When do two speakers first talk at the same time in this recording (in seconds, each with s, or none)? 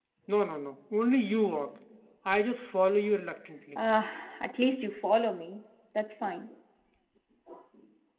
none